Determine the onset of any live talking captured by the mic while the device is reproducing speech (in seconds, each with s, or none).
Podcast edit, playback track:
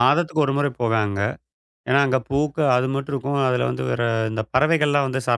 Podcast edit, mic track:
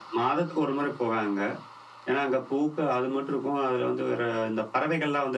none